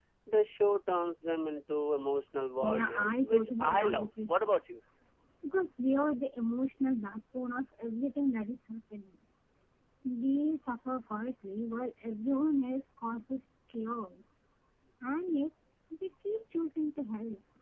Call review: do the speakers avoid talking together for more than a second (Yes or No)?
No